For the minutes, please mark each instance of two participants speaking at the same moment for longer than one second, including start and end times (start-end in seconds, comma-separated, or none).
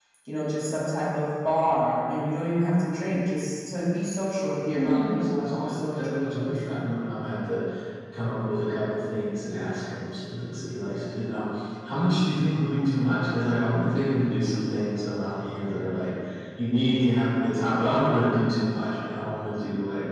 4.7-7.1